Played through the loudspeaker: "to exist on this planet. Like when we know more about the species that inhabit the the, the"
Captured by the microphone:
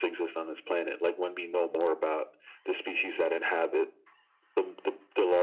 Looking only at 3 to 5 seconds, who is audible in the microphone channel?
echo only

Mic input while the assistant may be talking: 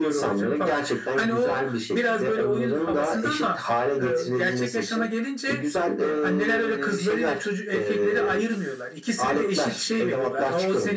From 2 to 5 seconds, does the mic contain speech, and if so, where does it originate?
echo only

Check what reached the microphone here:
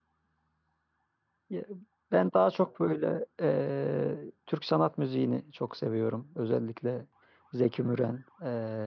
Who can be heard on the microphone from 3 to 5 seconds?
user only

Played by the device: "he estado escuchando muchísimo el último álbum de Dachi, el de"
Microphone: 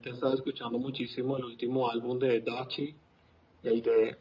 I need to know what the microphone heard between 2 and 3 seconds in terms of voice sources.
echo only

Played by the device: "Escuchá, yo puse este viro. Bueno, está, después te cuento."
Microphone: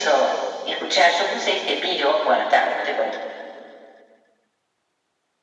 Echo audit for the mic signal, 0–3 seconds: echo only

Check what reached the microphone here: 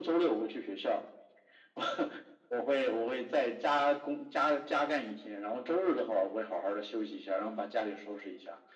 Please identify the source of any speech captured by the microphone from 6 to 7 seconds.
echo only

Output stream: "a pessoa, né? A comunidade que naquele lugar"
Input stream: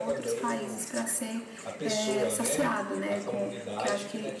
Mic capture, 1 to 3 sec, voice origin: both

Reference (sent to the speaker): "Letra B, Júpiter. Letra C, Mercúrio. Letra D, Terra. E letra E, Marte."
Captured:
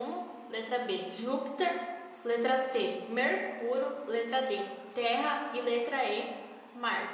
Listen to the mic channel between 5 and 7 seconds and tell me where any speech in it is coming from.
echo only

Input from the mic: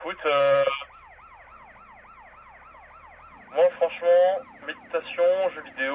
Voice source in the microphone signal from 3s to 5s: echo only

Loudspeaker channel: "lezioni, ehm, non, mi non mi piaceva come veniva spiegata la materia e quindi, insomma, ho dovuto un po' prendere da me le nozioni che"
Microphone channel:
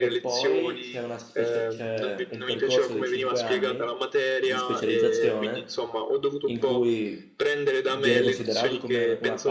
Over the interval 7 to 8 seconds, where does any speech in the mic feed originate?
both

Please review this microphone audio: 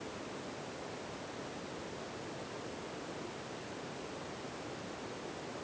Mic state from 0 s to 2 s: neither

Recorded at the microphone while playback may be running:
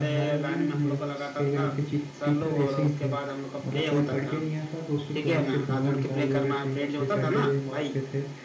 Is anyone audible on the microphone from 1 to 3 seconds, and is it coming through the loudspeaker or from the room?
both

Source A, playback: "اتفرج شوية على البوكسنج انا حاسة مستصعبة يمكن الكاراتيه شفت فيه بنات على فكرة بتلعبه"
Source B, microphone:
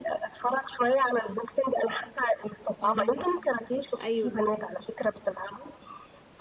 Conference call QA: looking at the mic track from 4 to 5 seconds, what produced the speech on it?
both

